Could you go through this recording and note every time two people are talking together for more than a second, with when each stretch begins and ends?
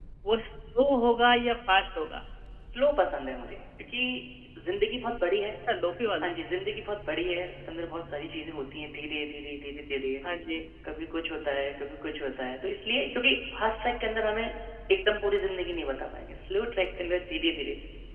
none

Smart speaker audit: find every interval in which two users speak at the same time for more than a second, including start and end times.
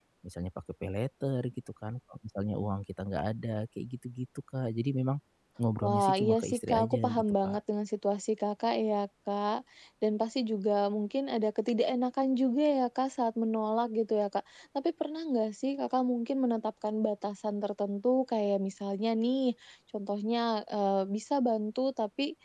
5.8-7.6

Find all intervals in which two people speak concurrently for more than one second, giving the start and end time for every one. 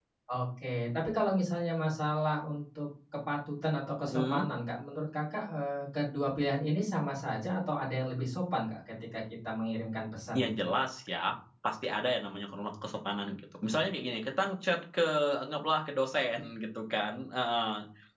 none

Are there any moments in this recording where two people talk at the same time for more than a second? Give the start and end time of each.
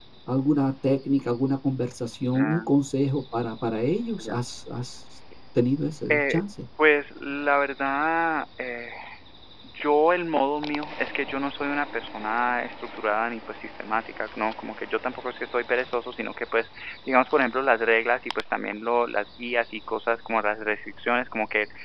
none

